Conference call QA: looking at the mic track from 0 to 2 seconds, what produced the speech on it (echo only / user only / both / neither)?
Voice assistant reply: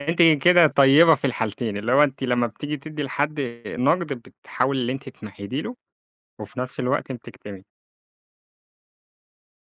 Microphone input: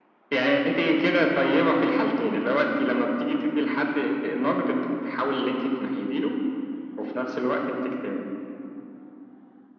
echo only